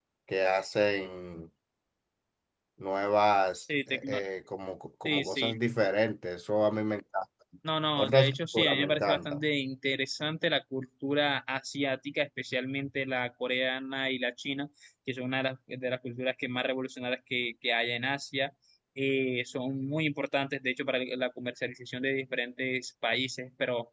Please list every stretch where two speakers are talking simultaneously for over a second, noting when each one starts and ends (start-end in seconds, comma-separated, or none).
8.0-9.4